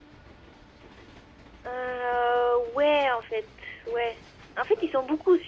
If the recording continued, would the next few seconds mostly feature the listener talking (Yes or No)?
No